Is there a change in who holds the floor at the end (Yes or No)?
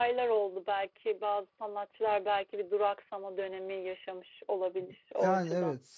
Yes